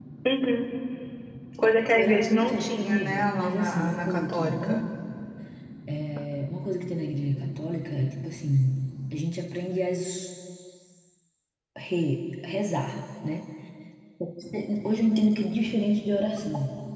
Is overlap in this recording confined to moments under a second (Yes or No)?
No